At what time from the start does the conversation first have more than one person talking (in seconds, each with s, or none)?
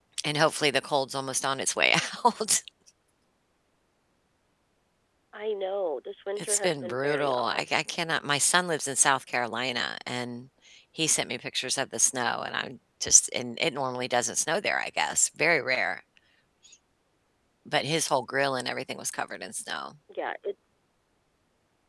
6.4 s